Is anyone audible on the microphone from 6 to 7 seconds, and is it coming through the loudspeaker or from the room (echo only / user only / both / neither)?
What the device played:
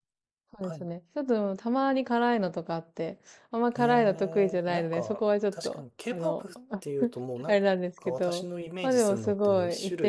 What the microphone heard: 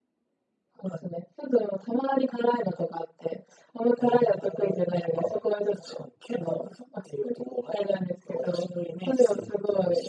echo only